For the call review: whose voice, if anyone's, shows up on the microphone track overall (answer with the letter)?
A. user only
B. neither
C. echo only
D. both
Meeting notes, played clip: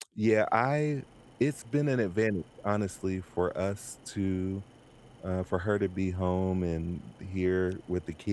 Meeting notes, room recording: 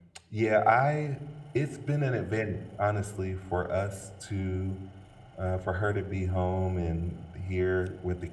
C